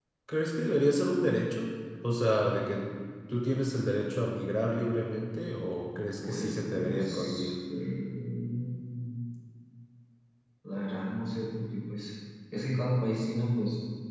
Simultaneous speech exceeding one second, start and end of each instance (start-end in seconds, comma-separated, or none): 6.2-7.5